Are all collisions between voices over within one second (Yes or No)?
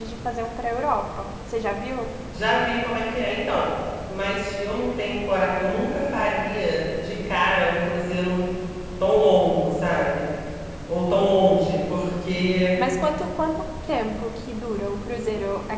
Yes